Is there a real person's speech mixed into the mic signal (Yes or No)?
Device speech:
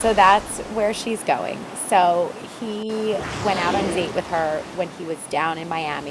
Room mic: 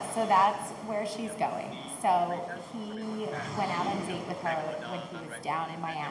Yes